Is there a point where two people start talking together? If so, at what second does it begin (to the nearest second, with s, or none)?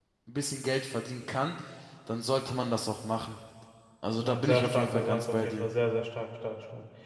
4 s